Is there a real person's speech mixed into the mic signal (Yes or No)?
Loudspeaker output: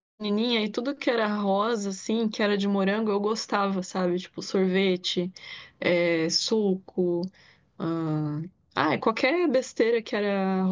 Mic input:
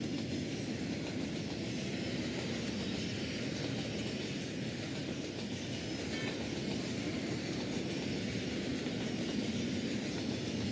No